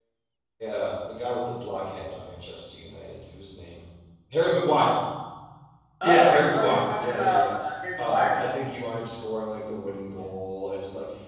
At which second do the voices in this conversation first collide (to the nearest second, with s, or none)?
6 s